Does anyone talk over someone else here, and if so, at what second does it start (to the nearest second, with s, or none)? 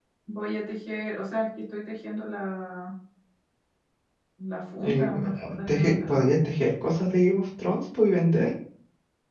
5 s